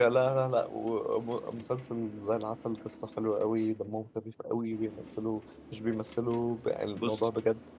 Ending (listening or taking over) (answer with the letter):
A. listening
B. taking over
A